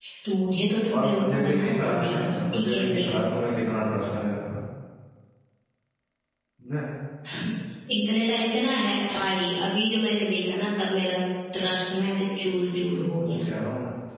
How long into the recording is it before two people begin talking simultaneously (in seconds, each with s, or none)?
0.9 s